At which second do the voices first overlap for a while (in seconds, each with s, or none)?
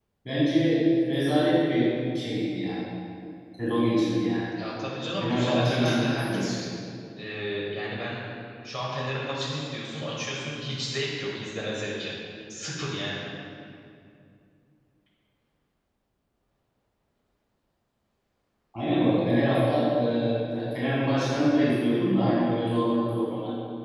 5.2 s